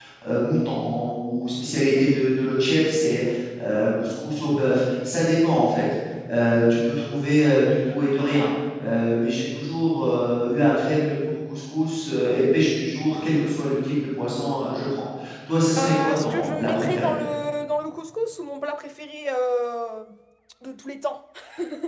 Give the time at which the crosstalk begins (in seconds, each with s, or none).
15.8 s